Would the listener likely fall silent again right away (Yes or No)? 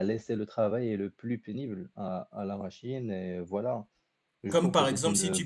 No